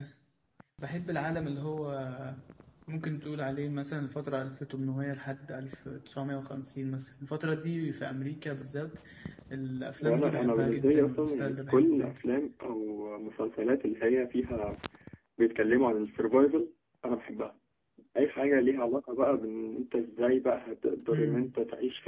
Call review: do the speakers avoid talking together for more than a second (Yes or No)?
No